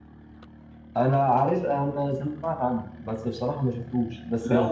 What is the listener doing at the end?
taking over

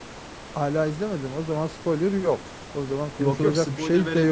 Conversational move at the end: taking over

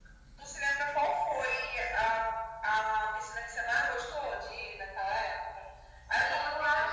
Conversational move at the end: listening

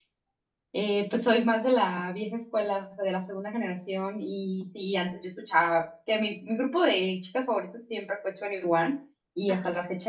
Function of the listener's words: listening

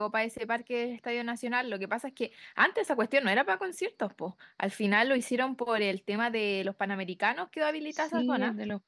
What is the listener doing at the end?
taking over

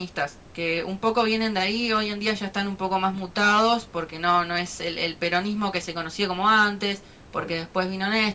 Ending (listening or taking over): listening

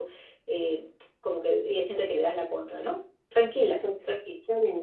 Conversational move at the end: taking over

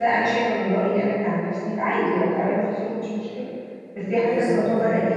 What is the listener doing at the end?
listening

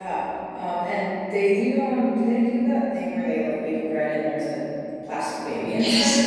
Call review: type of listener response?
taking over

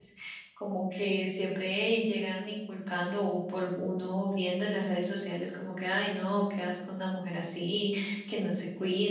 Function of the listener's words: listening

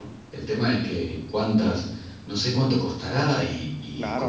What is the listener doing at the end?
taking over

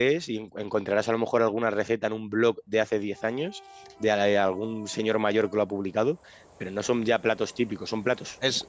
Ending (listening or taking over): listening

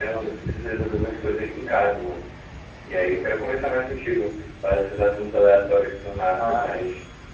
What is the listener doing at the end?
taking over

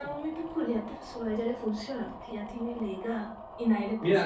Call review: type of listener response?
taking over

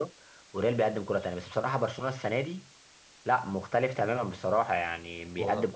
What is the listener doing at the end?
listening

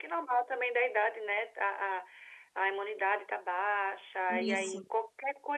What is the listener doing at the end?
listening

